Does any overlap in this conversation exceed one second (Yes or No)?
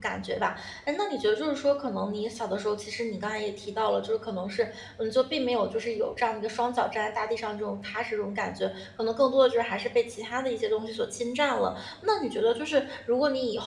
No